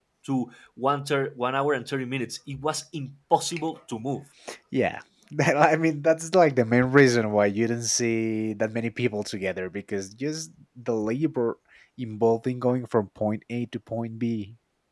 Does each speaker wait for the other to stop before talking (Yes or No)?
Yes